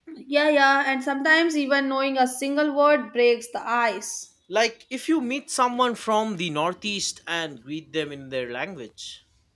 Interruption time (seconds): none

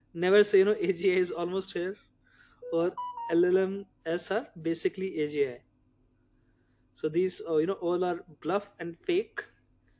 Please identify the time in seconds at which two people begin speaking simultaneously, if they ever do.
none

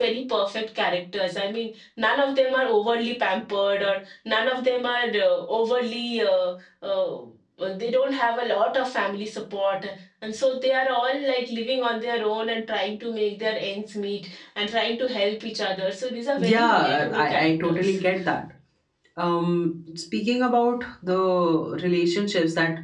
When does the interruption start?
16.4 s

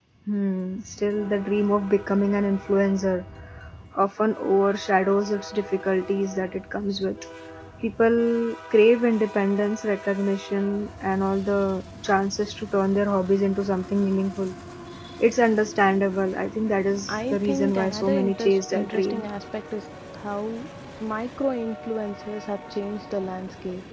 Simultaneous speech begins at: 17.1 s

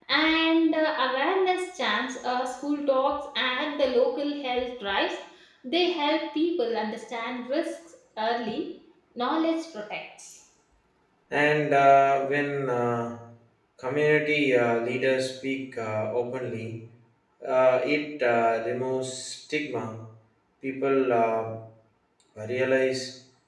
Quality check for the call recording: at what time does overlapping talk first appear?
none

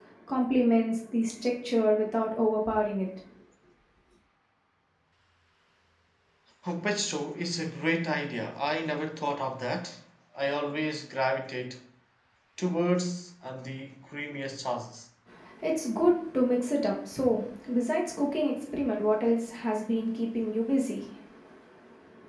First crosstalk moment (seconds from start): none

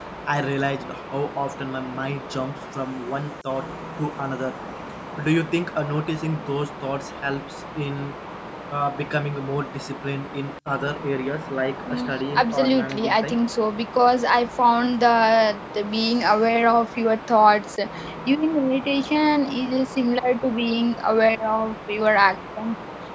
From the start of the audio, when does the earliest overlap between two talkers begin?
11.9 s

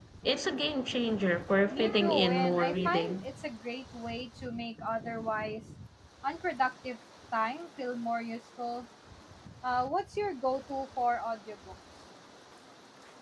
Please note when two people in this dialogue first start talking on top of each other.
1.7 s

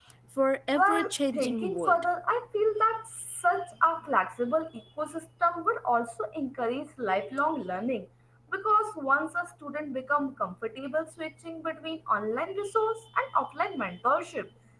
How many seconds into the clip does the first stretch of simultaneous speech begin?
0.8 s

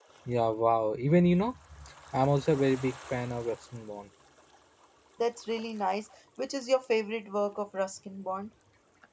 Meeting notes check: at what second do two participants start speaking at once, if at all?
none

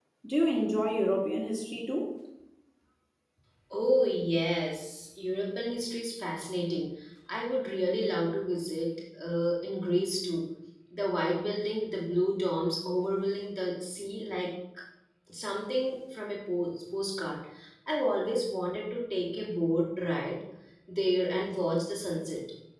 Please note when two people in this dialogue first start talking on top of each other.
none

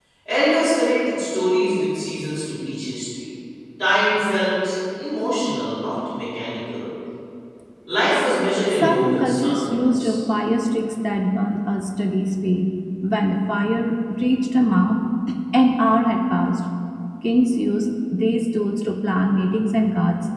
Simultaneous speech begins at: 8.7 s

